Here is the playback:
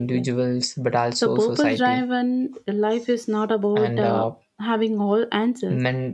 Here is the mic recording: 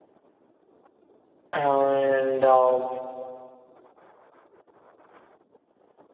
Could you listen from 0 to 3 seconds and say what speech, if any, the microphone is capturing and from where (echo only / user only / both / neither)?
user only